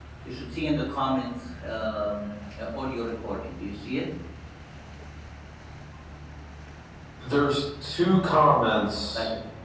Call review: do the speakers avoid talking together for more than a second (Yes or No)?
Yes